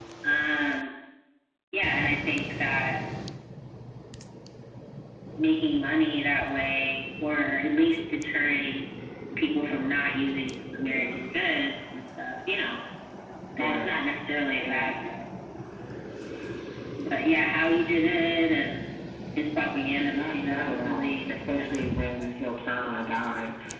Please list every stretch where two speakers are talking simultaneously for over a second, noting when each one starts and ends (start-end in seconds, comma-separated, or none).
20.1-22.3